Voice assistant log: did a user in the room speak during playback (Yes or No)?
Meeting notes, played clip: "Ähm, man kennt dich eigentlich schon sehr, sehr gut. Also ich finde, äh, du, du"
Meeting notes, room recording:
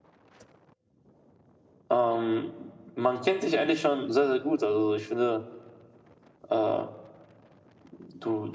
No